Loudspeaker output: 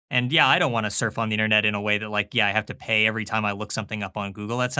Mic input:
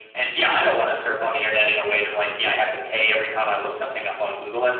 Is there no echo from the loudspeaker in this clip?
No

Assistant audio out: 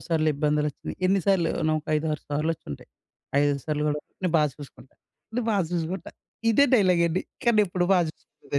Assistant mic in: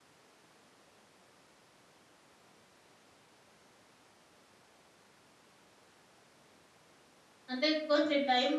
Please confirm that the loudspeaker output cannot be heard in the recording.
Yes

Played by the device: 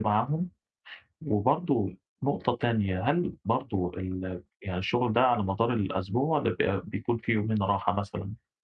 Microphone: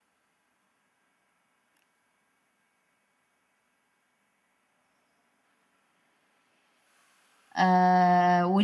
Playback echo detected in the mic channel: No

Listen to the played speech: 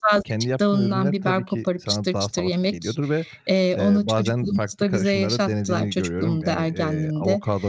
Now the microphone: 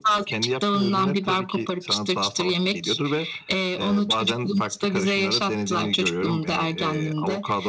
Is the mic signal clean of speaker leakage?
No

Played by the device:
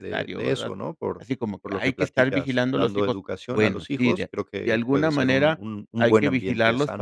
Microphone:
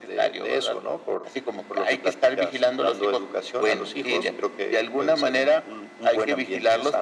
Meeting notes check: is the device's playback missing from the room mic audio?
No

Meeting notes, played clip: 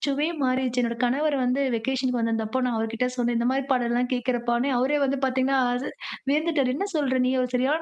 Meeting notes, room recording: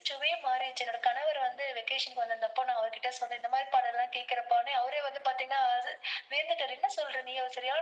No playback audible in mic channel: No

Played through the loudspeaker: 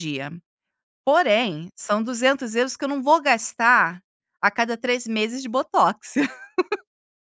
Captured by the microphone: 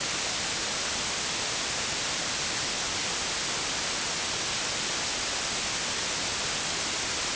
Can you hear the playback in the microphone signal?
No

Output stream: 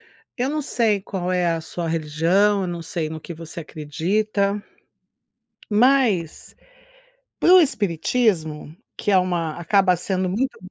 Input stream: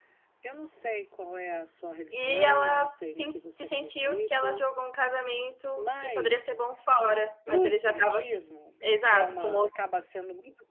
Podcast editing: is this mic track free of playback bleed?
No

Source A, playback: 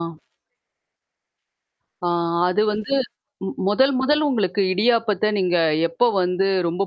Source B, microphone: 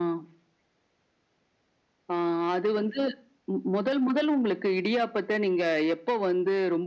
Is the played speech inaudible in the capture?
No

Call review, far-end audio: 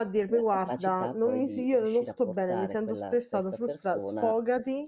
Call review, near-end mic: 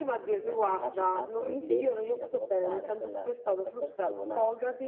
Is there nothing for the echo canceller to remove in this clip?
No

